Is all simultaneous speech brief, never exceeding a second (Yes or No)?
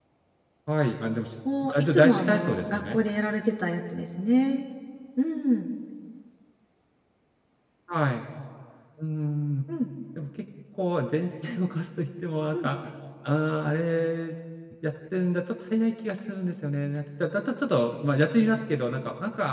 No